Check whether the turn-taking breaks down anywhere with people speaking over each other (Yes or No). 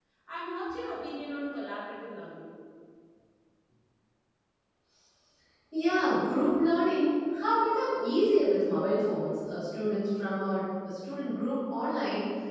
No